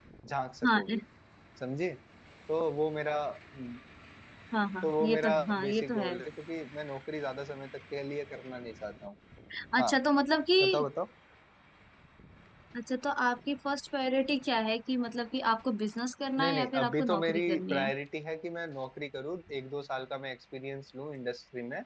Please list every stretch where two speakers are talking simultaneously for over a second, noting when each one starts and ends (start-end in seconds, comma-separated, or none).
4.8-6.1, 16.4-17.9